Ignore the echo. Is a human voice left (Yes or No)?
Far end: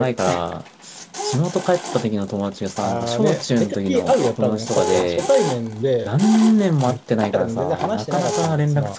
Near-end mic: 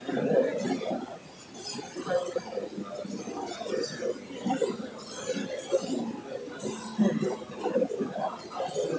No